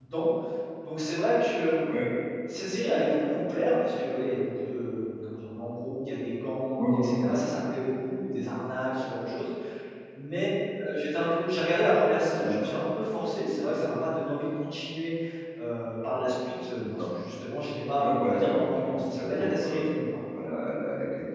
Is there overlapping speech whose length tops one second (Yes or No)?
Yes